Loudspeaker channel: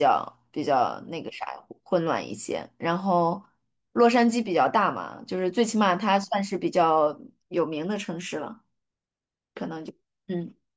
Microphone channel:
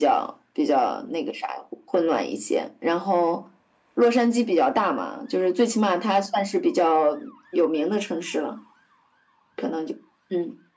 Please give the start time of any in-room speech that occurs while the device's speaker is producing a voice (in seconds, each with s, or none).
none